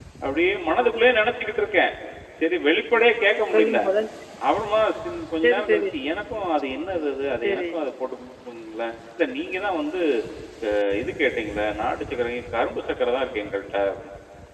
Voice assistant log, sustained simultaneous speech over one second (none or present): none